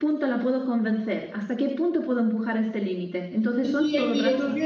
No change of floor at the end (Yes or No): No